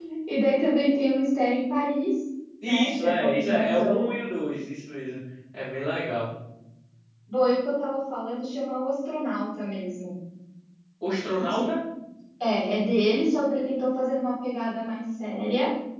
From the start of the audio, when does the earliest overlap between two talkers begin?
2.6 s

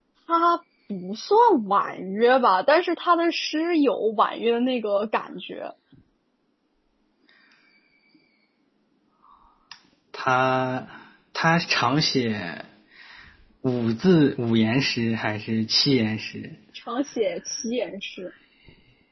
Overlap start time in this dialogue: none

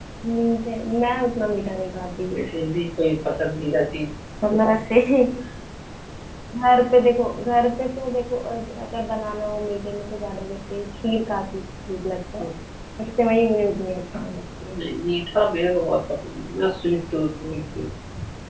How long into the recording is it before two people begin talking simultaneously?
none

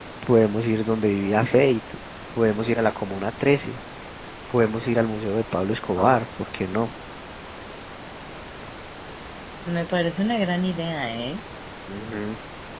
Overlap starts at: none

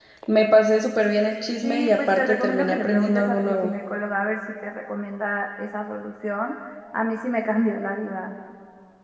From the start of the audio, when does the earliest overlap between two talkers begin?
1.6 s

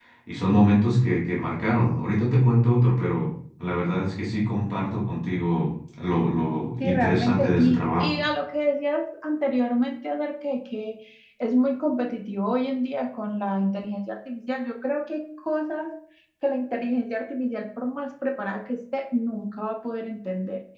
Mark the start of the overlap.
6.8 s

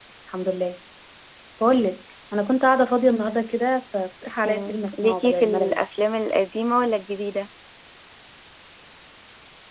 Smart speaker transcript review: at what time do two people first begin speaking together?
4.4 s

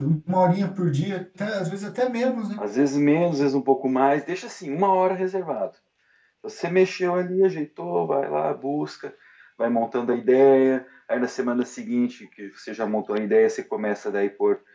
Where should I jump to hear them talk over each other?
none

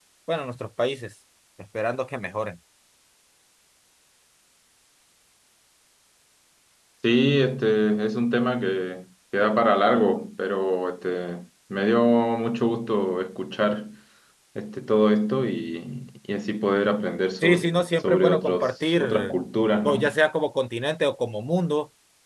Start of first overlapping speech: 17.4 s

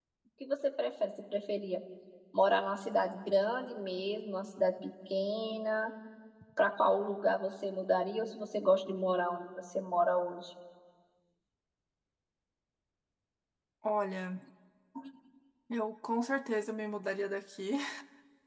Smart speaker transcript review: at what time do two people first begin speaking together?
none

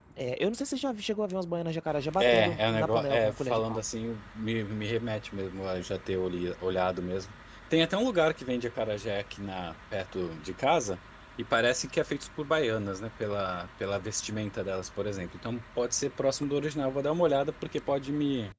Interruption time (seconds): 2.2 s

